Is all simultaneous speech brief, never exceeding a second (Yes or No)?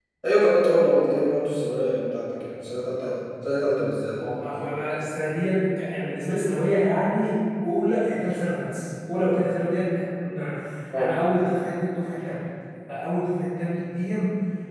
Yes